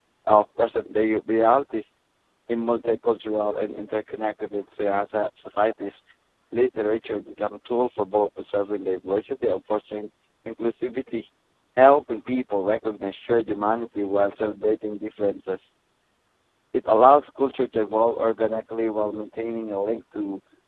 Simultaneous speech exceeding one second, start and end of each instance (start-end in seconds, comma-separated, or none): none